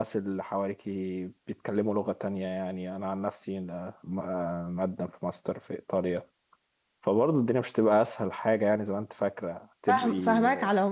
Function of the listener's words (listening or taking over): taking over